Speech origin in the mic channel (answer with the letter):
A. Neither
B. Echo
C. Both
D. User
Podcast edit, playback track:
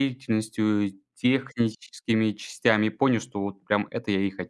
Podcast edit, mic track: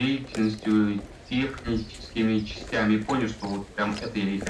B